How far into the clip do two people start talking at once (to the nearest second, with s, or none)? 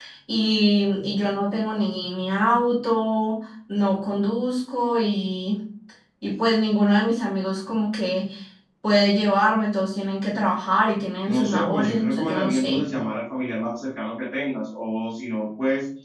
11 s